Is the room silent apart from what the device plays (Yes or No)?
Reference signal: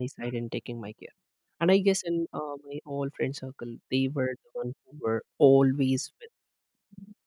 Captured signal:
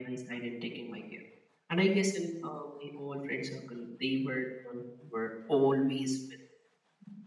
Yes